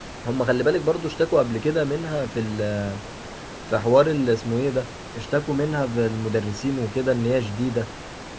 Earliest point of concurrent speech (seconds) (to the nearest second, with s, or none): none